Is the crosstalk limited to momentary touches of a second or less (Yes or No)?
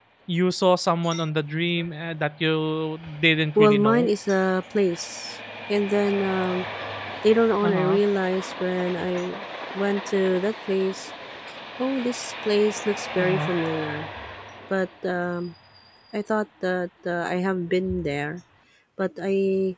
Yes